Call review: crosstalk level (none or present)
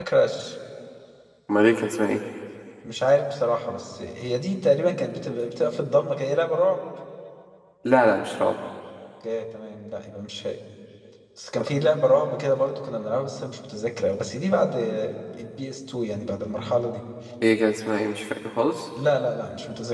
none